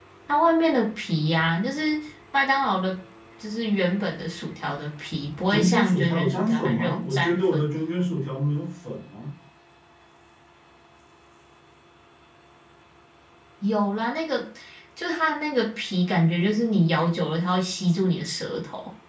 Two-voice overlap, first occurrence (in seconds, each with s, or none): 5.5 s